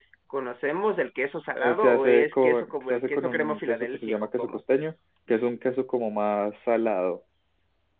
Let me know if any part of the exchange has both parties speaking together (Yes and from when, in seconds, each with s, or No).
Yes, from 1.6 s